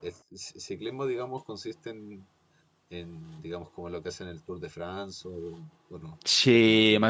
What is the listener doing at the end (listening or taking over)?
taking over